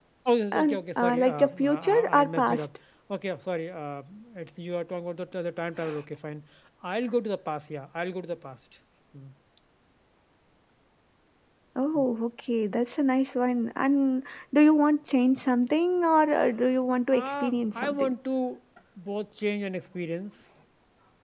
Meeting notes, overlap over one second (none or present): present